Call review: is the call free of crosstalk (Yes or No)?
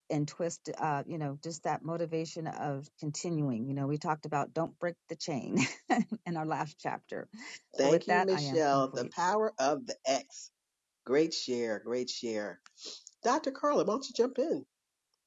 No